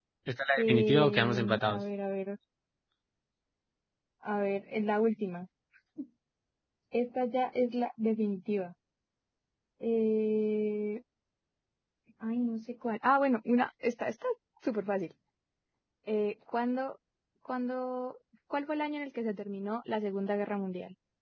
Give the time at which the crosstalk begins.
0.6 s

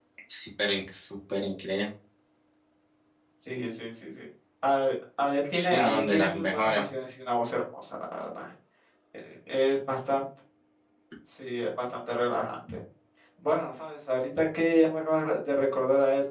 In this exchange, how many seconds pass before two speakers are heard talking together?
5.5 s

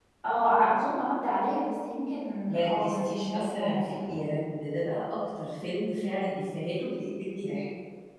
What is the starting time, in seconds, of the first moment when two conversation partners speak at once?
2.4 s

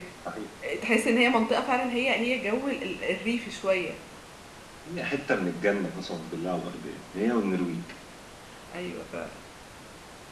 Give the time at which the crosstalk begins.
none

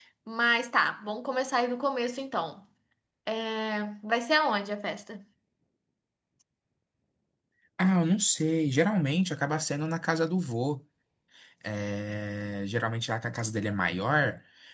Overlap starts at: none

